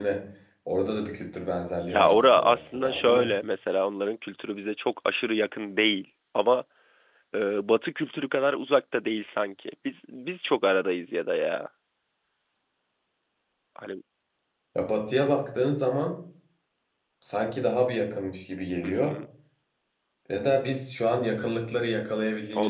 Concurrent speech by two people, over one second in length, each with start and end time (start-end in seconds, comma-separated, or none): 1.9-3.3